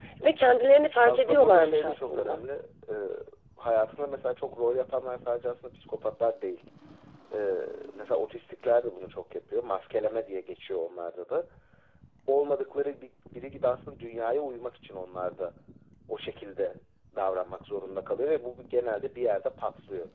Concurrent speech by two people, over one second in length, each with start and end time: 1.0-2.4

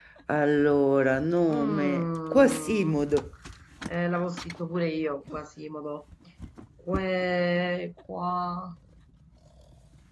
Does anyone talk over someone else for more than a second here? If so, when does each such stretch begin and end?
1.5-2.9

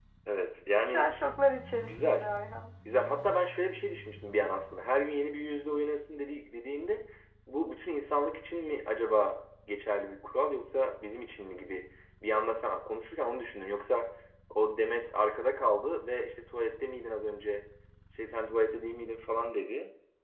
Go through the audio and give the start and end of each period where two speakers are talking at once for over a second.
none

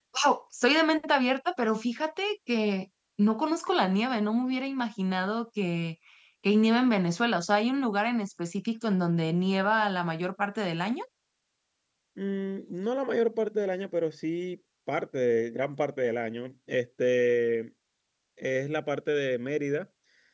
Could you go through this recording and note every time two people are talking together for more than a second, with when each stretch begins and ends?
none

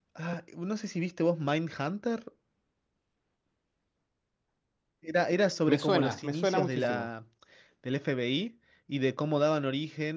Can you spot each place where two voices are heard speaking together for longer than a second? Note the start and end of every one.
5.7-7.1

